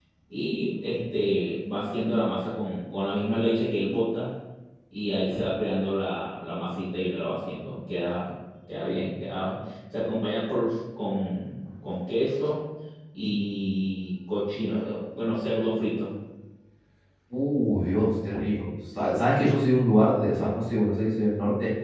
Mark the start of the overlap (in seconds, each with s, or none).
none